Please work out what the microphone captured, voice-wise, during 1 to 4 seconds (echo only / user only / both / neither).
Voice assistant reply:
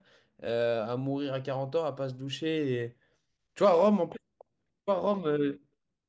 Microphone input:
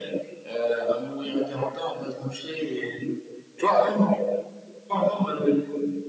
echo only